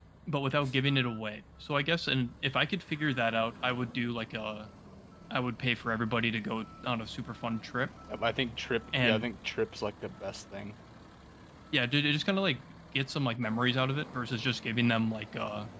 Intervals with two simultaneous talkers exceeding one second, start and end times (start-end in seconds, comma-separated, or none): none